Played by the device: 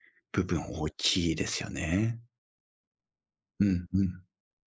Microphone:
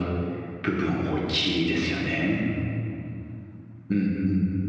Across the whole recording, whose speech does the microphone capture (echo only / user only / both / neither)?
echo only